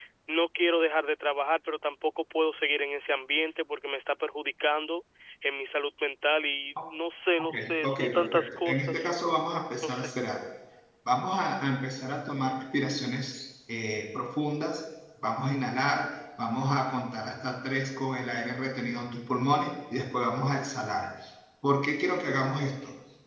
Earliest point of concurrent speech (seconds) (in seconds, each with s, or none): 7.4 s